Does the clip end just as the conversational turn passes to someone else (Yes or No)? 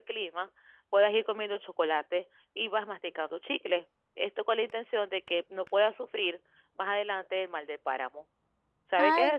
Yes